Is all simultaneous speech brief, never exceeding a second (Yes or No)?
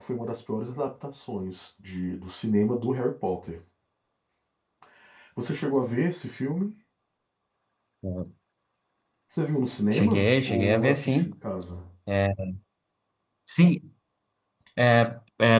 No